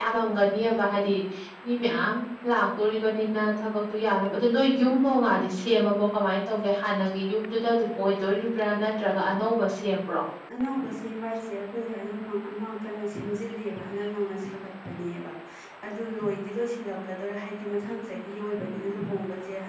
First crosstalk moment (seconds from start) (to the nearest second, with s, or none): none